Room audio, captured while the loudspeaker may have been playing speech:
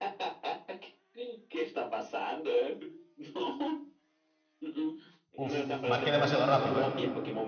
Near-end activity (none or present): present